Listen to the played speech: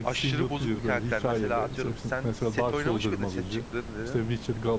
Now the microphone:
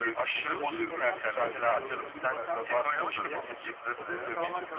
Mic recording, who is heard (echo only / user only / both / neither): both